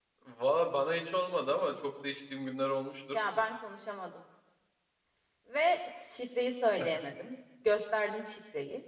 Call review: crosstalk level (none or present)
none